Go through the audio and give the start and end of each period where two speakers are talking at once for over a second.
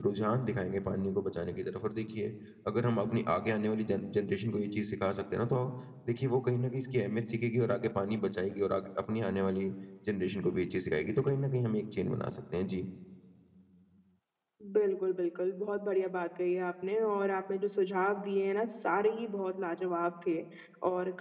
none

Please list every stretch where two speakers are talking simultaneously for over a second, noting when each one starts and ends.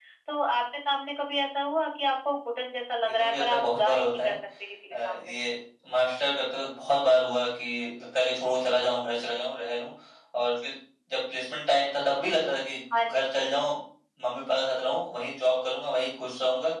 3.0-4.4

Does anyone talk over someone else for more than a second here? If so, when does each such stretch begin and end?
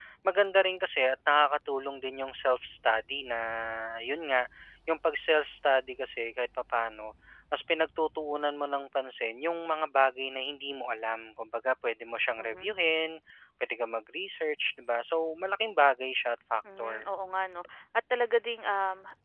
none

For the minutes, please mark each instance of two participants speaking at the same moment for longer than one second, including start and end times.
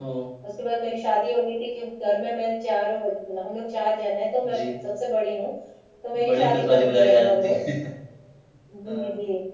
6.3-7.5

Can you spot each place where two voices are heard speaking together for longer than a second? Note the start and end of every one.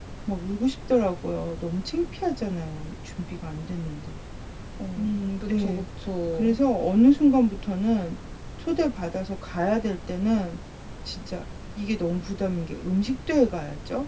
none

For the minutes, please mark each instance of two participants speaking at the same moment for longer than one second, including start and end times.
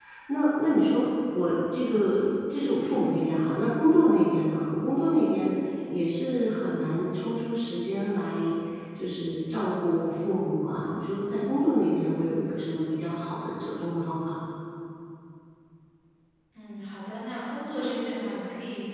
none

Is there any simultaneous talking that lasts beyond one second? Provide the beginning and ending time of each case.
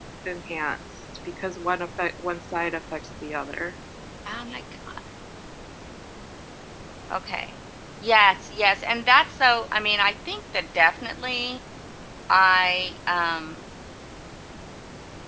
none

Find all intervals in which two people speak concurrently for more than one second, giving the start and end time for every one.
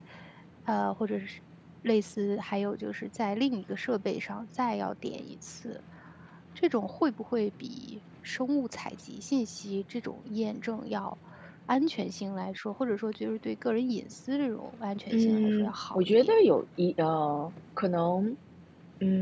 15.1-16.3

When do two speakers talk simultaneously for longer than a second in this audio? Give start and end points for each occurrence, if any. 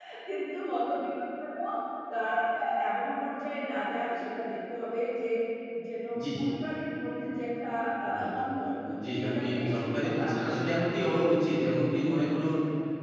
9.1-10.6

